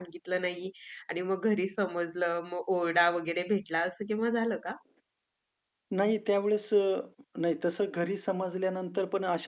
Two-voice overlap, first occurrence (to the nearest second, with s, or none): none